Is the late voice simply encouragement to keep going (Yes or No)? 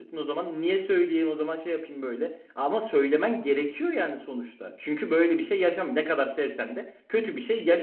No